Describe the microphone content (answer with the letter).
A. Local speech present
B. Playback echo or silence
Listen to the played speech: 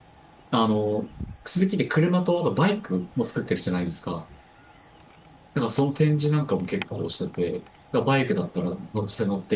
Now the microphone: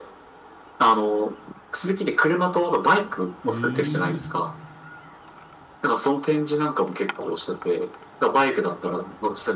A